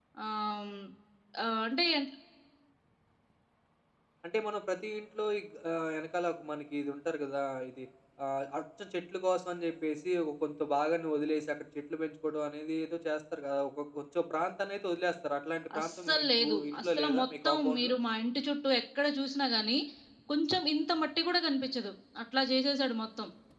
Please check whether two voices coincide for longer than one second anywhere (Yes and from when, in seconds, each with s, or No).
Yes, from 15.7 s